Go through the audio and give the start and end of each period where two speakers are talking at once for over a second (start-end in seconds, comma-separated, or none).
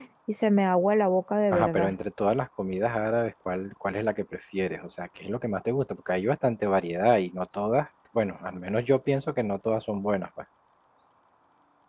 none